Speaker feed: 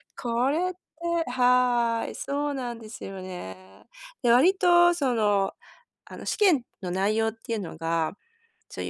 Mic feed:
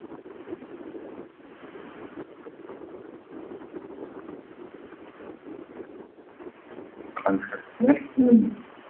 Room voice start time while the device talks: 7.1 s

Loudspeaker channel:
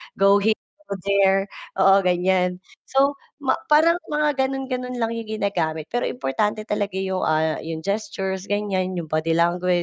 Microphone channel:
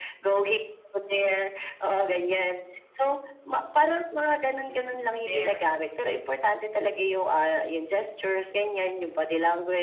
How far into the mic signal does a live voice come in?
4.6 s

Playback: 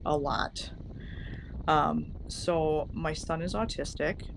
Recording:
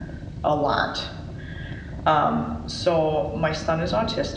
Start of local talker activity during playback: none

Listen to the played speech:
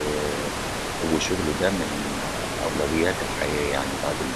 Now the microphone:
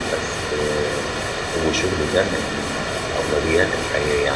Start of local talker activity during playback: none

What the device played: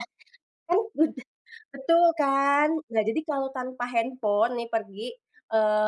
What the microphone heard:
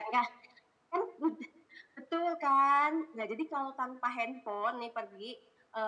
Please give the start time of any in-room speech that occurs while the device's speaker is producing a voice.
none

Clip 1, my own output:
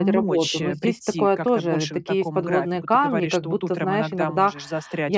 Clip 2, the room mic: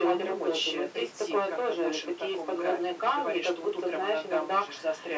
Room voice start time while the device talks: none

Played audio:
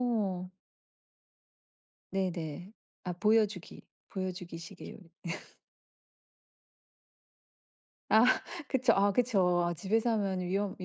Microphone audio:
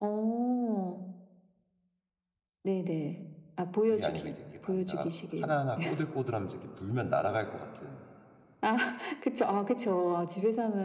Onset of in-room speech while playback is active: 3.8 s

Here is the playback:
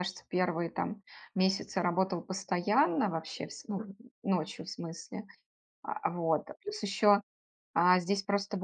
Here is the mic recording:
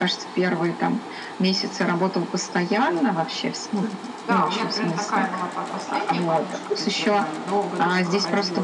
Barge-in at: 4.2 s

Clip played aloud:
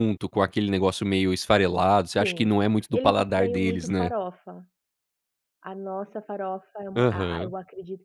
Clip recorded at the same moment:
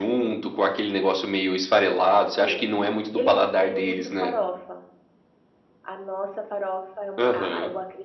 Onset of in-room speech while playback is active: none

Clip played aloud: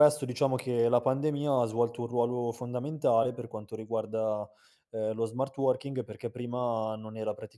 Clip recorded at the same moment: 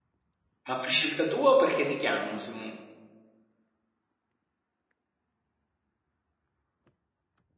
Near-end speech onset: 0.7 s

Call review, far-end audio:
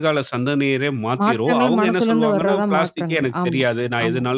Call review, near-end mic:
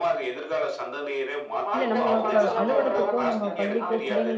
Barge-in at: 1.7 s

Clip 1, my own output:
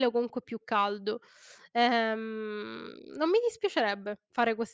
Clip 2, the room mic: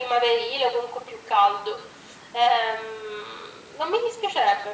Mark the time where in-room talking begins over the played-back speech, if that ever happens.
none

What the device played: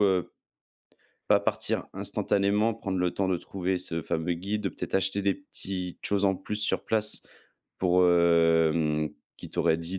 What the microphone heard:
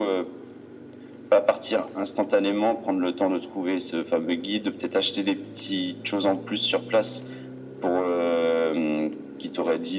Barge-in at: none

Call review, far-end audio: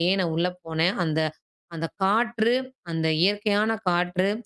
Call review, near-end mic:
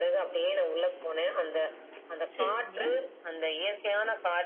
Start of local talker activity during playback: 2.4 s

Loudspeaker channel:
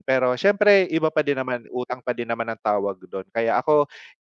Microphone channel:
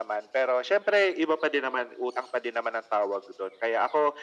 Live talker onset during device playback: none

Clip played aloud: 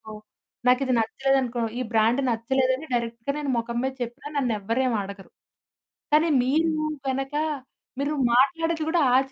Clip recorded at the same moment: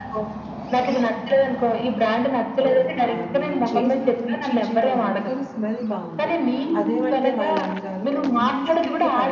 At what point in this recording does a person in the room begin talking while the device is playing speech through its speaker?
2.6 s

